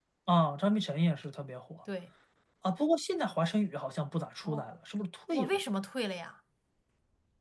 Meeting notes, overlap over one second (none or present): none